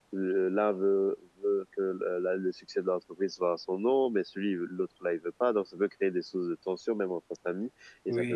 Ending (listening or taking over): listening